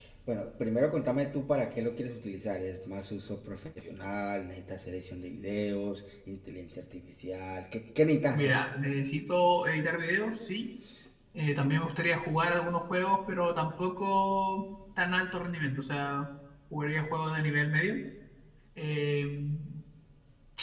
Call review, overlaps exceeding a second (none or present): none